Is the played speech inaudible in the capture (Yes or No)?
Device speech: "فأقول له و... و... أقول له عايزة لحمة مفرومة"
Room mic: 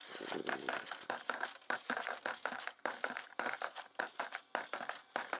Yes